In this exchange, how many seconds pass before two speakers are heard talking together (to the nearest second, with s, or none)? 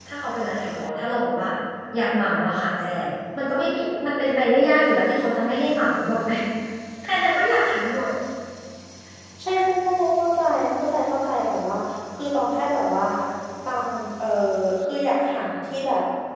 none